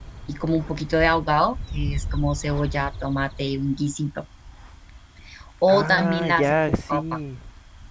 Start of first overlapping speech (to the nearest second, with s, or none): 6 s